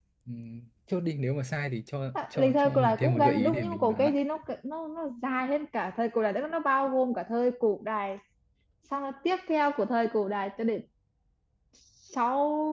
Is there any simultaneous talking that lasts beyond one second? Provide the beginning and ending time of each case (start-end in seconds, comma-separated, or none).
2.2-4.1